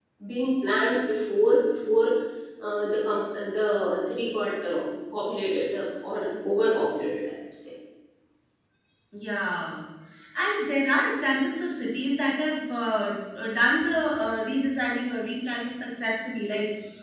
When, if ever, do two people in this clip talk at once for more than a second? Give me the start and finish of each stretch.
none

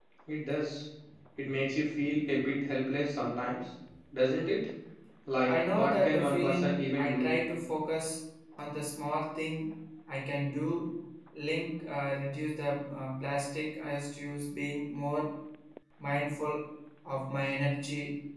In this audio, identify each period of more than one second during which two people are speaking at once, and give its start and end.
5.5-7.3

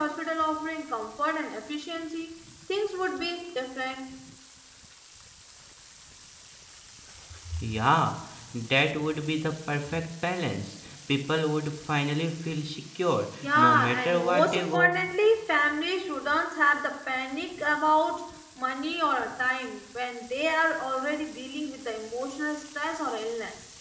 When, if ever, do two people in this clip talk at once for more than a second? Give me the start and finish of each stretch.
13.4-14.9

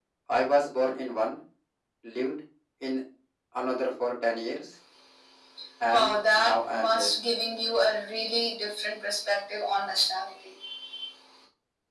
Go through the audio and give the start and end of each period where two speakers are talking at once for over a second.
5.8-7.1

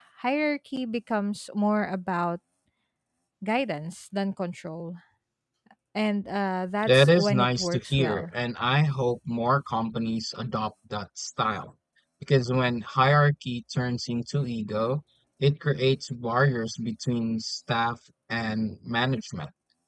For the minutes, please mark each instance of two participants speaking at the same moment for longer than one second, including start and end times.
6.8-8.2

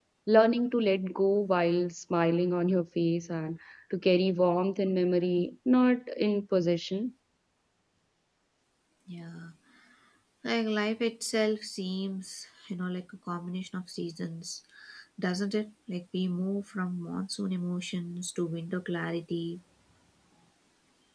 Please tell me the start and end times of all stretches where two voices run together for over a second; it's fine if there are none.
none

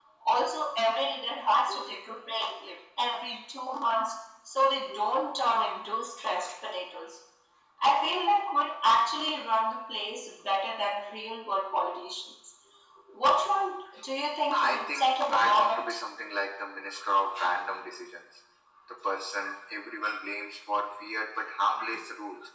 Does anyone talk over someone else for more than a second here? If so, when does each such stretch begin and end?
14.5-15.9

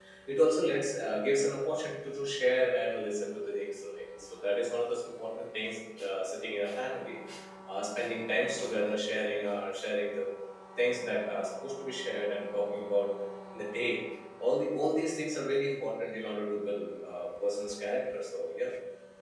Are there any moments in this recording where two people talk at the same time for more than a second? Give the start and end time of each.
none

